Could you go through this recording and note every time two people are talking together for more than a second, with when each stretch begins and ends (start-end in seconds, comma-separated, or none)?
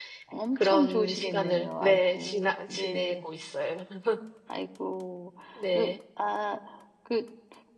0.6-3.2